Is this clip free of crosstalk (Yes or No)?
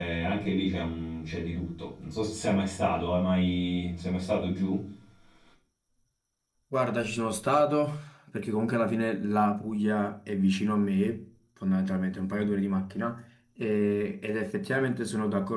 Yes